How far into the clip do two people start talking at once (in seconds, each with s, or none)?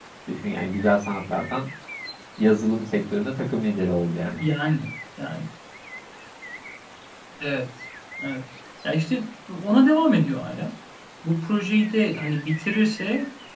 none